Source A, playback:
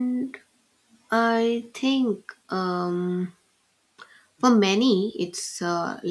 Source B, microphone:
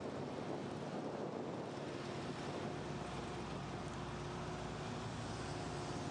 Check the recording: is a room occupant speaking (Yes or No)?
No